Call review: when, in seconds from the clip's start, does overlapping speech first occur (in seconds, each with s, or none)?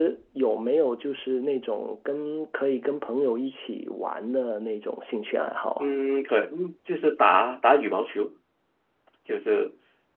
none